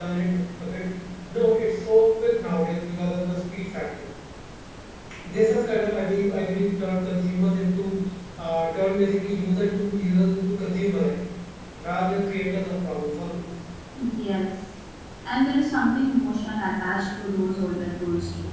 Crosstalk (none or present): none